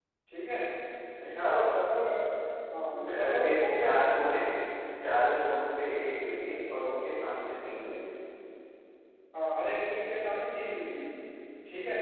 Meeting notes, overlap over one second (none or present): present